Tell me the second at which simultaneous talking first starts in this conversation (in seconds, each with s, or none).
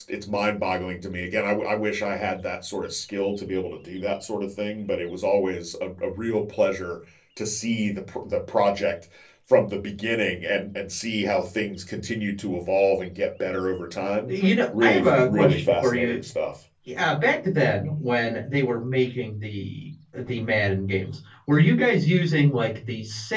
14.8 s